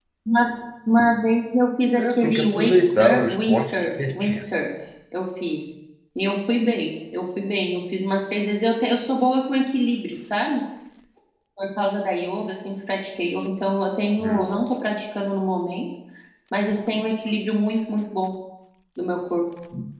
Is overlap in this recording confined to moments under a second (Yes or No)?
No